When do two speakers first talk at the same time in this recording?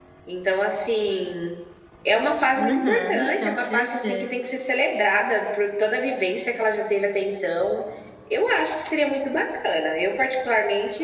2.6 s

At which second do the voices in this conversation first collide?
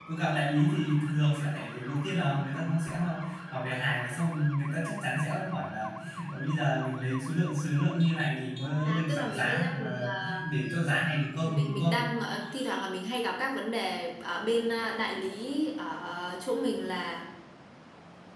8.8 s

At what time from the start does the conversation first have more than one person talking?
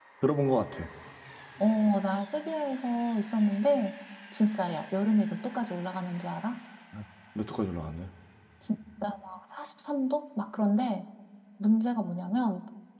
none

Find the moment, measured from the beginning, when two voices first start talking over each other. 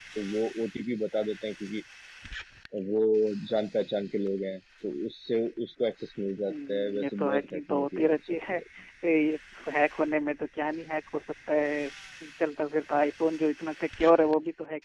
6.5 s

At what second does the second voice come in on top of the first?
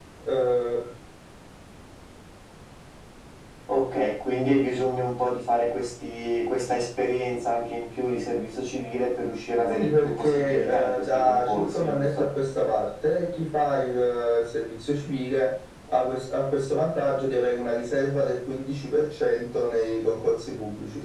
9.7 s

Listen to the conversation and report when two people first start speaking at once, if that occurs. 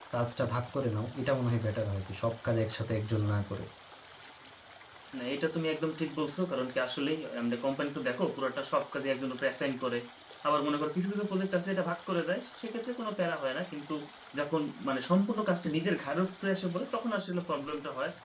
none

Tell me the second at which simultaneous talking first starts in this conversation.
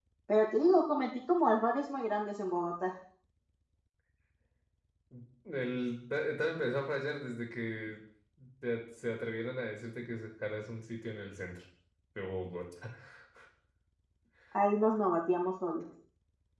none

